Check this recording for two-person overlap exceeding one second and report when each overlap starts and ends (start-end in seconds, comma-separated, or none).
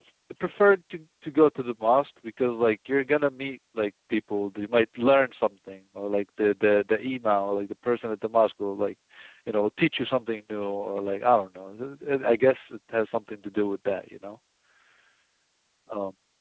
none